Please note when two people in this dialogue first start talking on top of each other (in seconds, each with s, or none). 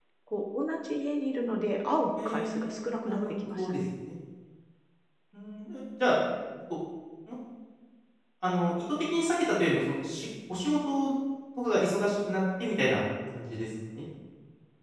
2.2 s